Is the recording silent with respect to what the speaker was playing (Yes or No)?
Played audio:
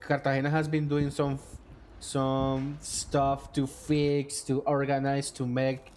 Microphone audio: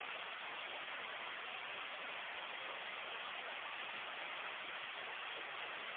Yes